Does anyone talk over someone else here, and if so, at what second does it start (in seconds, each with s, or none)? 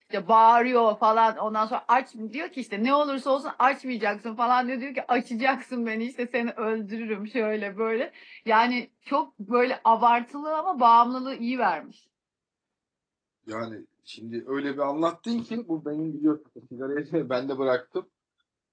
none